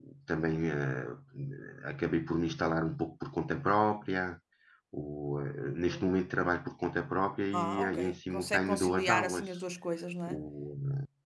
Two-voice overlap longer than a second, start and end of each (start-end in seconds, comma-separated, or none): 7.5-9.5